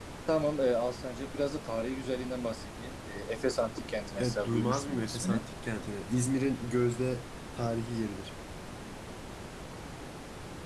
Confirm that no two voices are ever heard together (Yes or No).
No